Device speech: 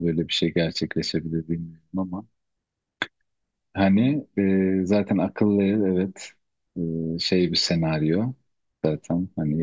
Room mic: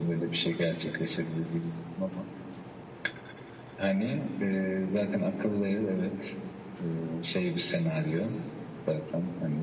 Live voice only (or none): none